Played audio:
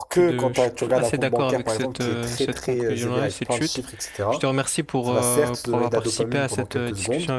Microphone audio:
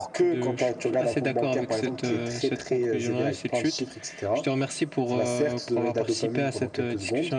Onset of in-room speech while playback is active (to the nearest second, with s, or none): none